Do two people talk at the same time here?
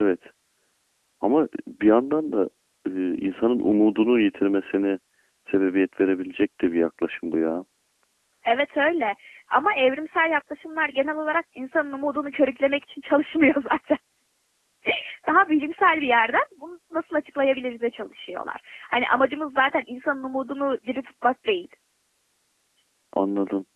No

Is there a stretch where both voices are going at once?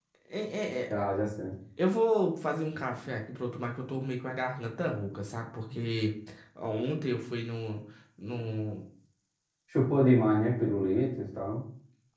No

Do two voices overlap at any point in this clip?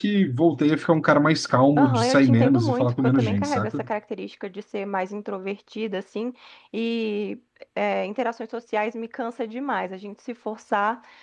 Yes, from 1.8 s

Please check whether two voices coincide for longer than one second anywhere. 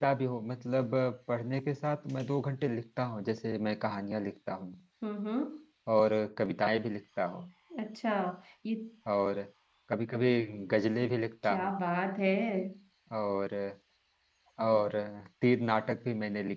No

